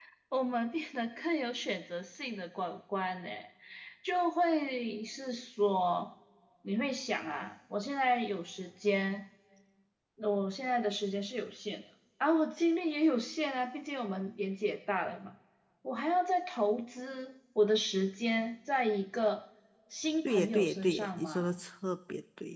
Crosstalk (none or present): present